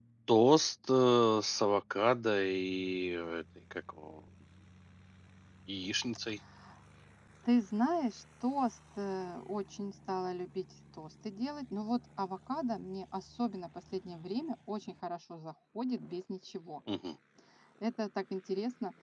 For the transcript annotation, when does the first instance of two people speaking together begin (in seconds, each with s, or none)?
none